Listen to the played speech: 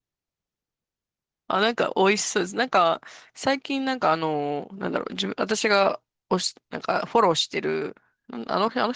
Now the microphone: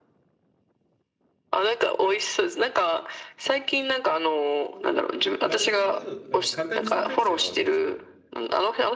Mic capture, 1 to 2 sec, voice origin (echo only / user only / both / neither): echo only